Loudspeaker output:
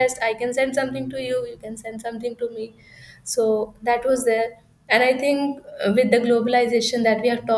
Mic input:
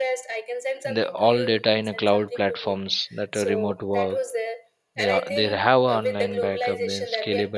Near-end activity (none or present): present